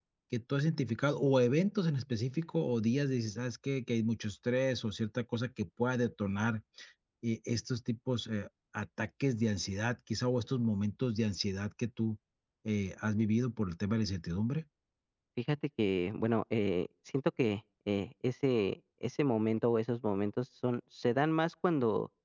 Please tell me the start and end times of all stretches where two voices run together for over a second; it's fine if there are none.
none

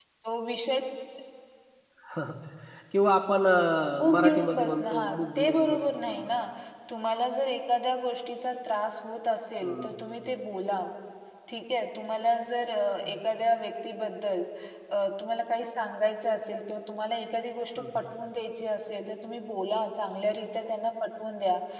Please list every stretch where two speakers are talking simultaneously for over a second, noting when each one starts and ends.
4.0-6.3

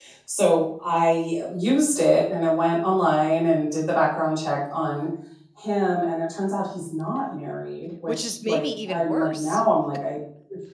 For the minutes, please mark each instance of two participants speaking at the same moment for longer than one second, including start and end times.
8.1-9.6

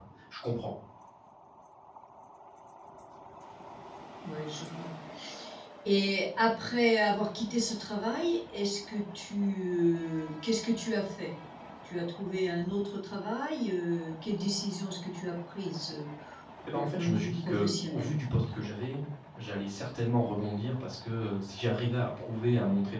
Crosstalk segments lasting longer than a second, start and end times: 16.7-18.2

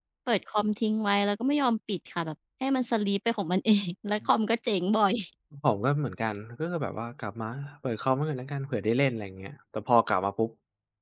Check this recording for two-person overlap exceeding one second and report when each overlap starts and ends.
none

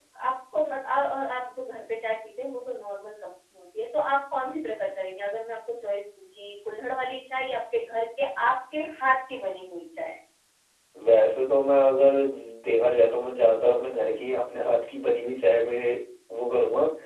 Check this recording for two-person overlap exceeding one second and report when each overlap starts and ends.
none

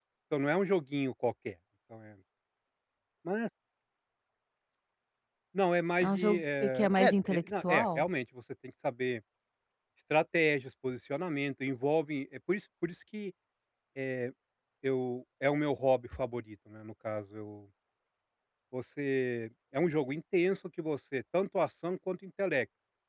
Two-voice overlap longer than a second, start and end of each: 6.0-8.1

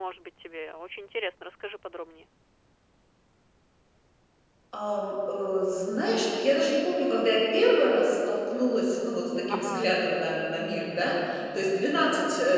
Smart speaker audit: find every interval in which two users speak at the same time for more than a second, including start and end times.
none

